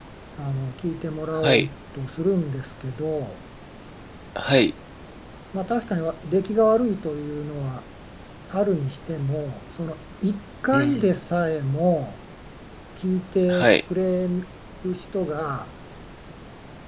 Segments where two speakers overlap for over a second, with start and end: none

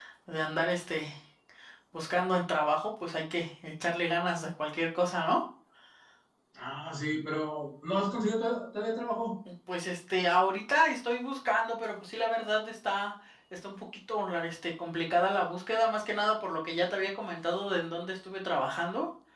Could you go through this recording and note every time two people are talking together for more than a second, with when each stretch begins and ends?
none

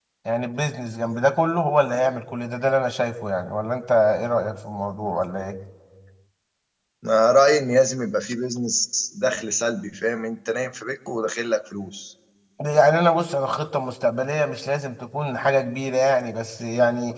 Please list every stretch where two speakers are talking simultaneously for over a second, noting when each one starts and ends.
none

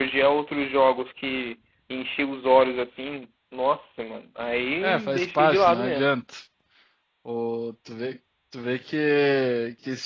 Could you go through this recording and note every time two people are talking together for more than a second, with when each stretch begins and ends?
4.8-6.1

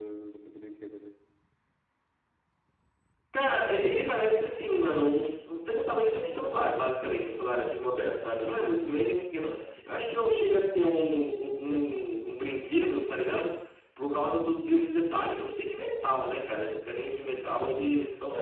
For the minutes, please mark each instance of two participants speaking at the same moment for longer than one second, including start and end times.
none

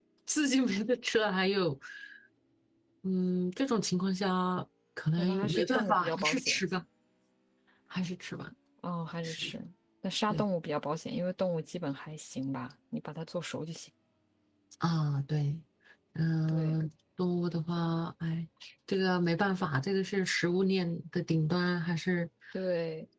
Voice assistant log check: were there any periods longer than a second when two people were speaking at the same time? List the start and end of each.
5.2-6.6

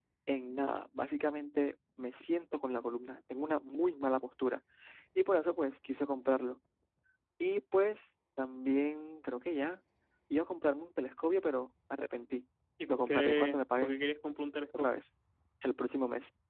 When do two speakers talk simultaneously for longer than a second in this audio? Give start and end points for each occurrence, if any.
12.9-14.1

